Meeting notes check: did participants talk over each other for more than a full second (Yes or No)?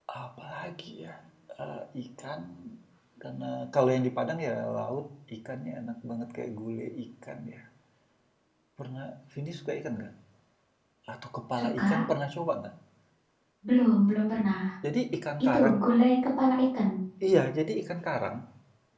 No